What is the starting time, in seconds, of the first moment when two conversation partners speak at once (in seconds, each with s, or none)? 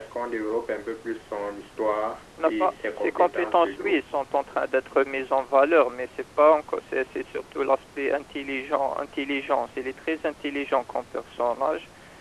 2.4 s